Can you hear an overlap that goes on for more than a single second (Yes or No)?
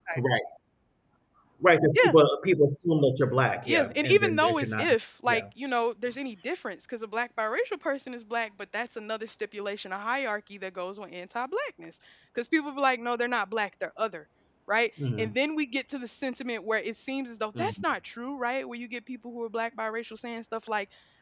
Yes